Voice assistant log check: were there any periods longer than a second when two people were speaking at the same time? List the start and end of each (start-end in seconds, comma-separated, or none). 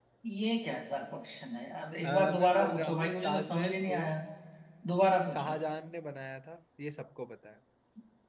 2.0-4.0